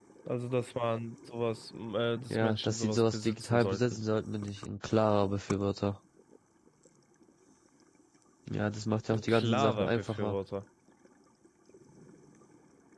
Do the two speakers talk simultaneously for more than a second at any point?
Yes, from 2.3 s

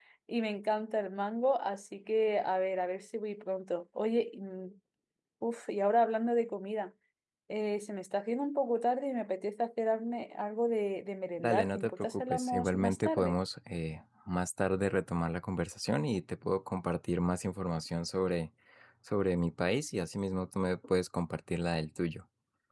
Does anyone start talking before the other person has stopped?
Yes, from 11.4 s

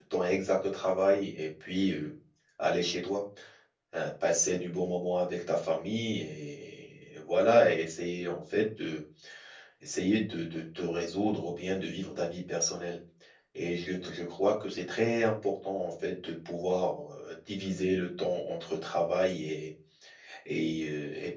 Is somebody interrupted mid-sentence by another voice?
No

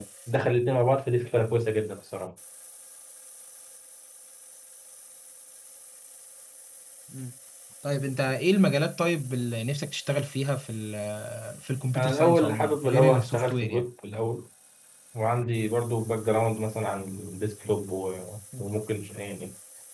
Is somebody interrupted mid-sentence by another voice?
Yes, from 12.0 s

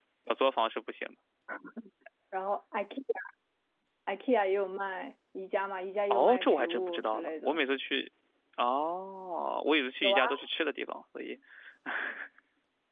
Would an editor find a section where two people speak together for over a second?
Yes, from 6.1 s

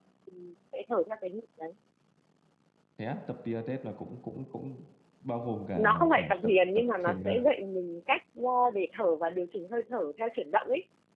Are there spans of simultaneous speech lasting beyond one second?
Yes, from 5.8 s

